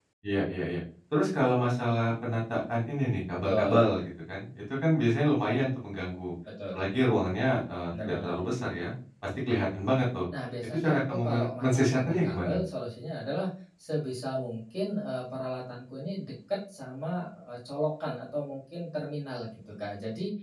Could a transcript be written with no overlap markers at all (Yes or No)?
No